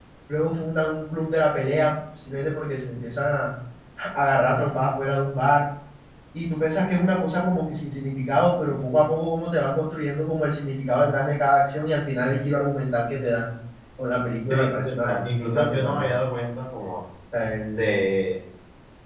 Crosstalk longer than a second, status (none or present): present